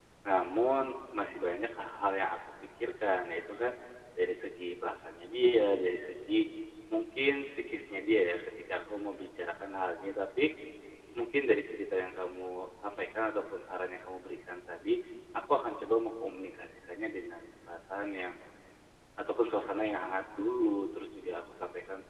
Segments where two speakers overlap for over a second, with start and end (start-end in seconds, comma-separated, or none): none